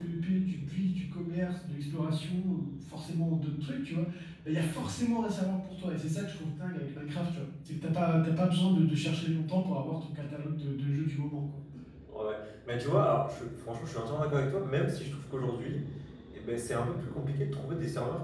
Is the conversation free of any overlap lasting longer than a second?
Yes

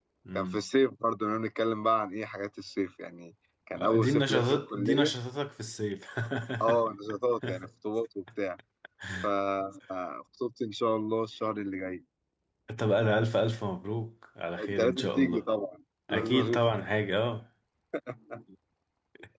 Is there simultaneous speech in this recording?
Yes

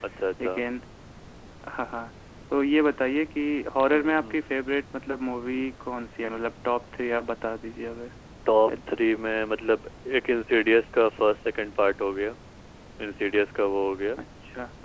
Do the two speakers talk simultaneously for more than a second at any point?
No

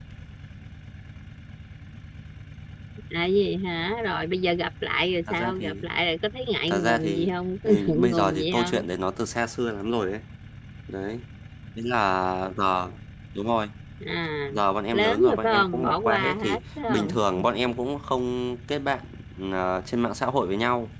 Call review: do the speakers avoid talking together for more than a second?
No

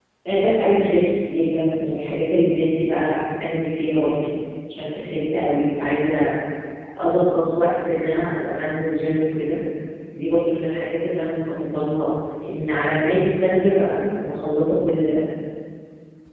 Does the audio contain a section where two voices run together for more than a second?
No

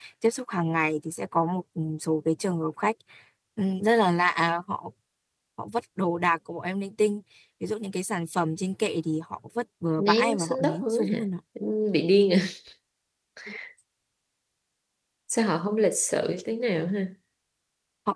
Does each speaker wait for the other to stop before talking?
No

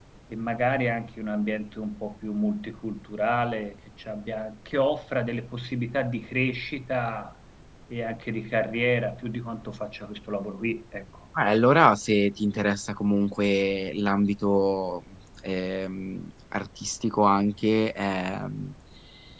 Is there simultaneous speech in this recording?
No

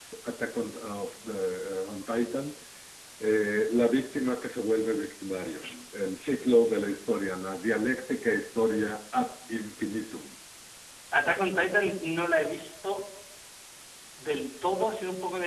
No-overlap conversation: Yes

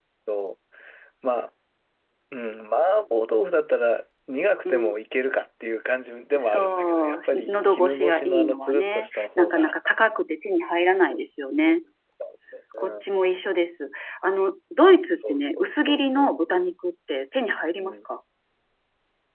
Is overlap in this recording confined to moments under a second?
No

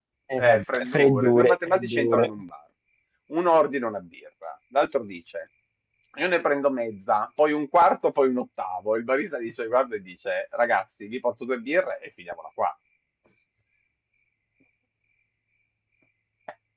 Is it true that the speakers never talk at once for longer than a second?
No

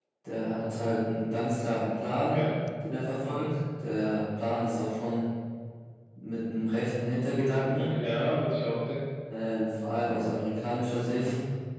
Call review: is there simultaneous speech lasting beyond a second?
No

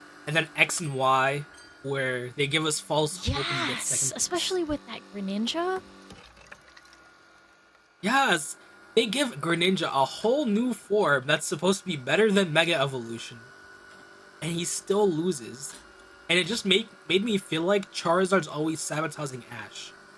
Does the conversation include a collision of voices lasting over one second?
Yes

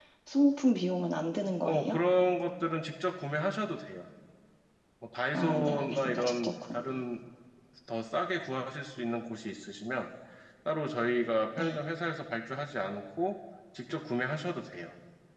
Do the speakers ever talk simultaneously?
Yes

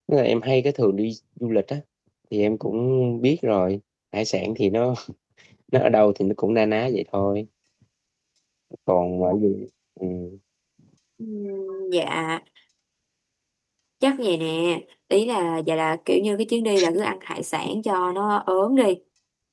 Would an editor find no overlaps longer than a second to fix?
Yes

